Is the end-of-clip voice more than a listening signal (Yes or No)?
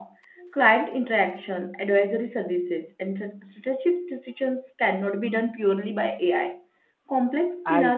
No